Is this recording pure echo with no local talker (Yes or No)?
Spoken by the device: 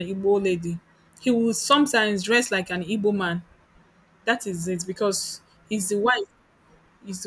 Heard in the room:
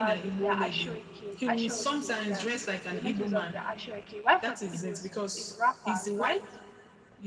No